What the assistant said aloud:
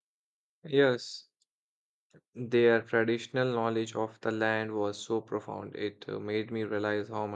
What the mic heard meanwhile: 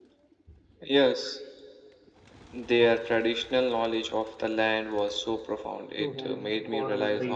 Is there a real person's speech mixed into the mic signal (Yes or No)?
Yes